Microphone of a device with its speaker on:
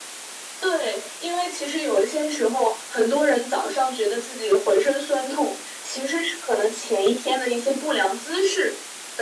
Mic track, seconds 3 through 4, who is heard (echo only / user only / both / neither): echo only